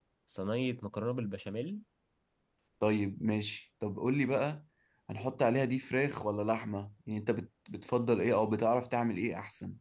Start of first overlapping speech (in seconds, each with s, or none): none